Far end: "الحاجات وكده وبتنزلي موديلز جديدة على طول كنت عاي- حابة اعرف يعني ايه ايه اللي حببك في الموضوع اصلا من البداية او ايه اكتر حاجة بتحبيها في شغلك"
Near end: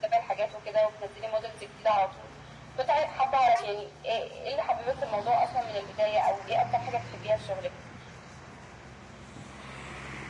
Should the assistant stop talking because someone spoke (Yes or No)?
No